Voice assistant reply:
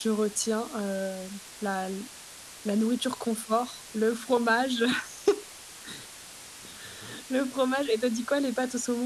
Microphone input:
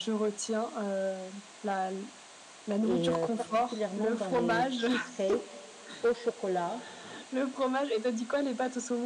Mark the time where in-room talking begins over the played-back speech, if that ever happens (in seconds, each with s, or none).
2.8 s